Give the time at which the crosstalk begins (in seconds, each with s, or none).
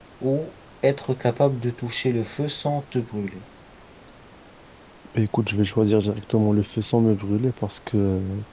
none